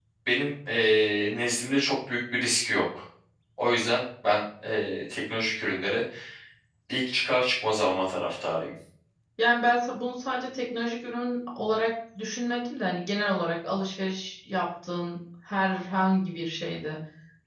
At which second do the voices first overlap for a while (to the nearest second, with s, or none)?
none